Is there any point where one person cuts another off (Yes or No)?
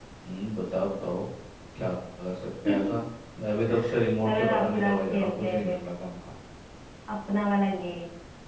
Yes